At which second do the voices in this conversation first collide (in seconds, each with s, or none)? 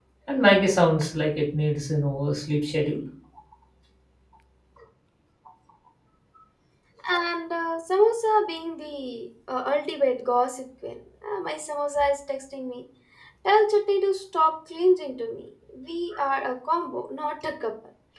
none